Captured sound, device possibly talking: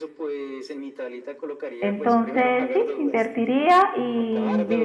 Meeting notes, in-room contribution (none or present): present